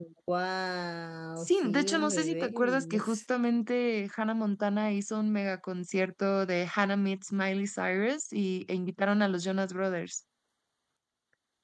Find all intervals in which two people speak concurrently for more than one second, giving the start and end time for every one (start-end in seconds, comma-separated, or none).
1.4-3.2